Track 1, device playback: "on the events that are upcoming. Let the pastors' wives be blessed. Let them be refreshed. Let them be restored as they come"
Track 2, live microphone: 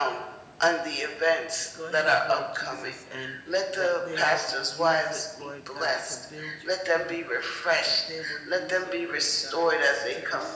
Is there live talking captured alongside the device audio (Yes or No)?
Yes